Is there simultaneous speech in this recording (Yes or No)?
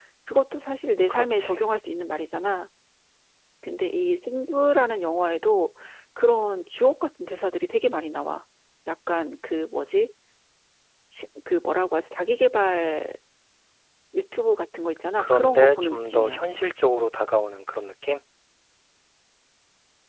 Yes